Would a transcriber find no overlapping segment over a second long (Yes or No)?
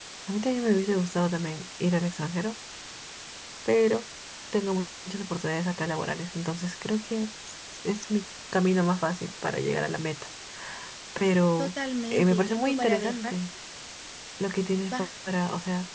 No